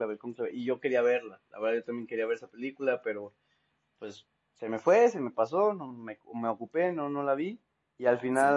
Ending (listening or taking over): listening